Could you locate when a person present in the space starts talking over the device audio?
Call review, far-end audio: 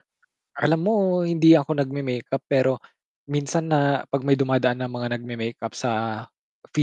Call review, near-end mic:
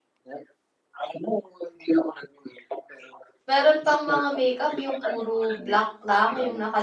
3.5 s

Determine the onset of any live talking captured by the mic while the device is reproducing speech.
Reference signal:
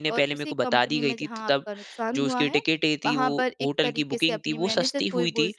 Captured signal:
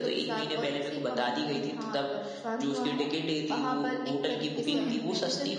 4.6 s

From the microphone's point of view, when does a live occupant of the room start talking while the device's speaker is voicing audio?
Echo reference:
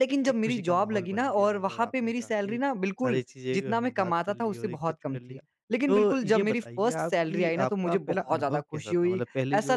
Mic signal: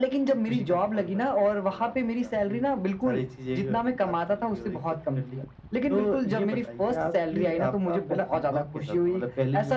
none

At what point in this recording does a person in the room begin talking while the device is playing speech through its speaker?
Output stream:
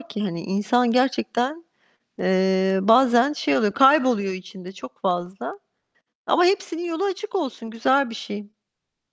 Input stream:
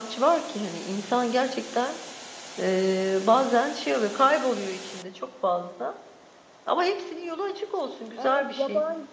8.2 s

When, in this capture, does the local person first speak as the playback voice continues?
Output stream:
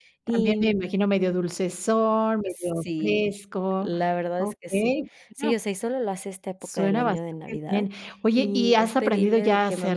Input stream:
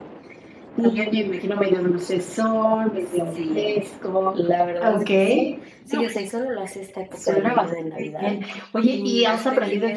4.8 s

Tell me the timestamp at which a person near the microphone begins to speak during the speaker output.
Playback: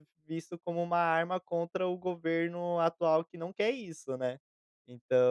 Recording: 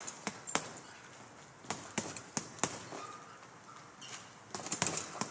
none

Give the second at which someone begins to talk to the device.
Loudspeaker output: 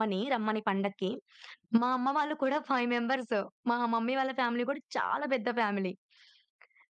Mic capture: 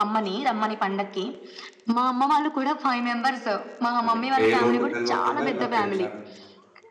4.0 s

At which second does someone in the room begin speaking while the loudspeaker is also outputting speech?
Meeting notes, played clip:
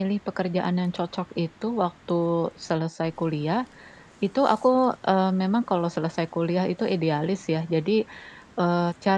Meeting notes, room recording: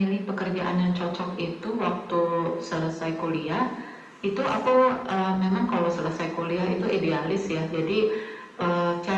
none

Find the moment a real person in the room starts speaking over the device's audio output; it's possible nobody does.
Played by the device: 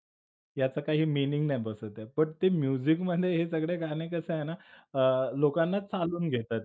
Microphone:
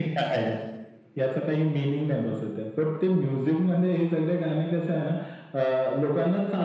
none

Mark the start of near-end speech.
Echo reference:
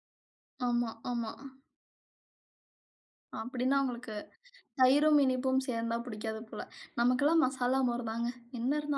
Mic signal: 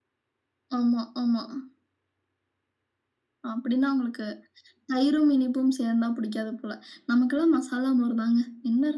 none

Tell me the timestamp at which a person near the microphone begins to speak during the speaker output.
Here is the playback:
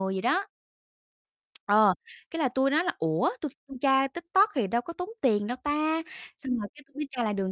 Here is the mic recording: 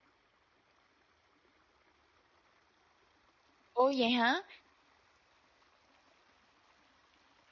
3.7 s

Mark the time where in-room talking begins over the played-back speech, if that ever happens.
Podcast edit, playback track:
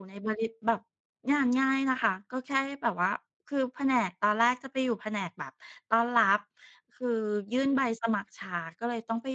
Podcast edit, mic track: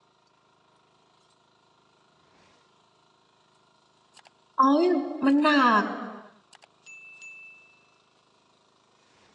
4.6 s

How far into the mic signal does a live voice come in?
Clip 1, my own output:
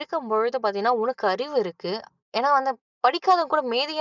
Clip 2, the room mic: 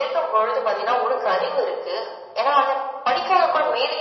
none

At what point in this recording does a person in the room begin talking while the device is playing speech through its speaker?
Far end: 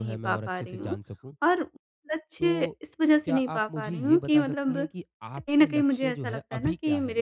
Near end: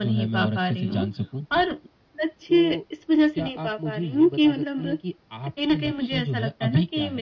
none

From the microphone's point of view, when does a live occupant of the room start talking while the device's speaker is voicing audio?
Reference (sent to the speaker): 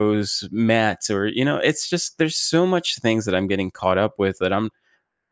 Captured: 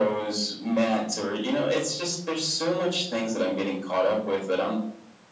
none

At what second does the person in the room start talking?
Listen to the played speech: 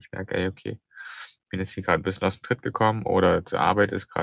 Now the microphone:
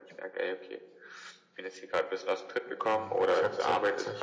2.8 s

